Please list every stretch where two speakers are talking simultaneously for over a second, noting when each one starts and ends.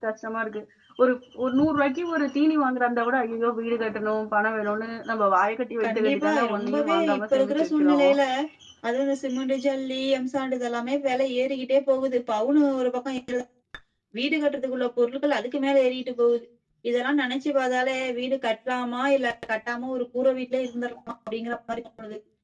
5.8-8.0

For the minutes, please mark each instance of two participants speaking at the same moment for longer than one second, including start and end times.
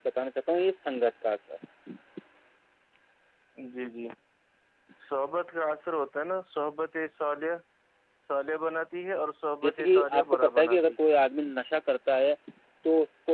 9.6-10.9

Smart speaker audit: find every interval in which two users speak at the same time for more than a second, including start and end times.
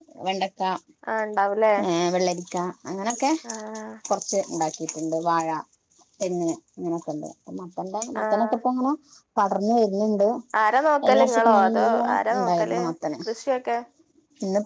11.0-12.8

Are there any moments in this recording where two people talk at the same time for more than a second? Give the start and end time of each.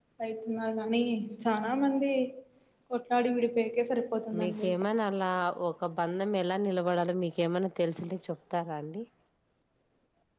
none

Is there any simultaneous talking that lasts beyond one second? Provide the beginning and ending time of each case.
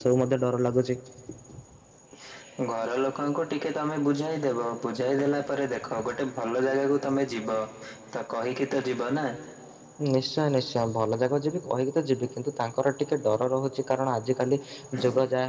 none

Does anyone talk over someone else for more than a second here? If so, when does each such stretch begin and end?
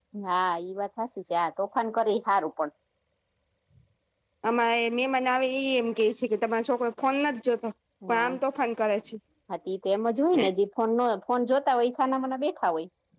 none

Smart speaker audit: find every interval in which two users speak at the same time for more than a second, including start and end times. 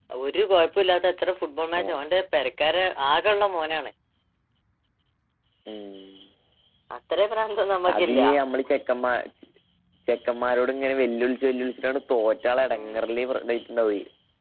none

